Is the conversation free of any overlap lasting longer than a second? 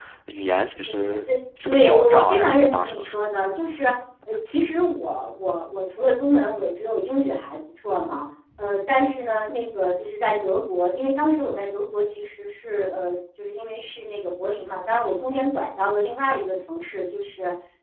No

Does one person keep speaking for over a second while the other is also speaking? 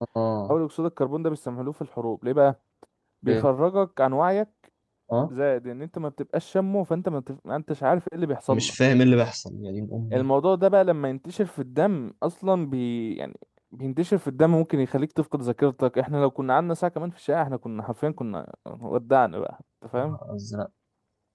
No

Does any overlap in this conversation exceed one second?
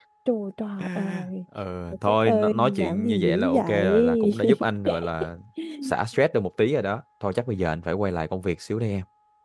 Yes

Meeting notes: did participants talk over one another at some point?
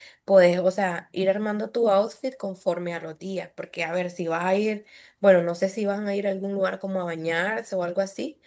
No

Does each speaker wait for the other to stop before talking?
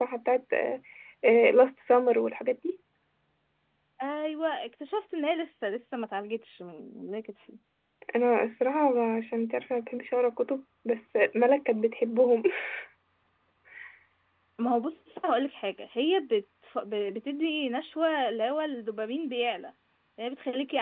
Yes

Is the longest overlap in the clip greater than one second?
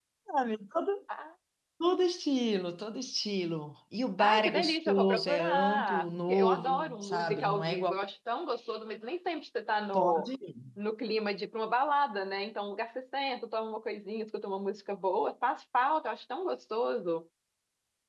Yes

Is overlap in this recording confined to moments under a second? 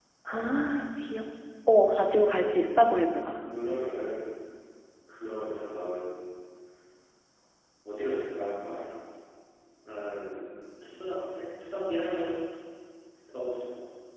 Yes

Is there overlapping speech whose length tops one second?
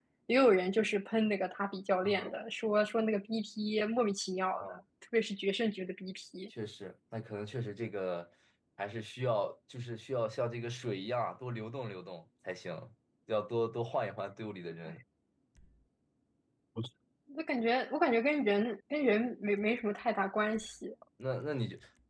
No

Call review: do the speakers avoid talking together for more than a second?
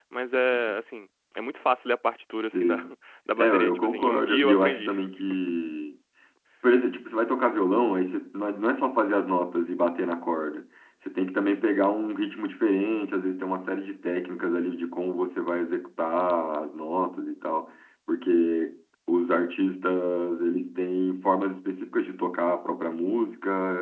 No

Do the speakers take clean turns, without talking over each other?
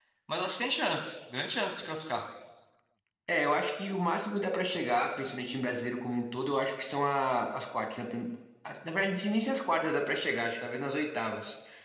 Yes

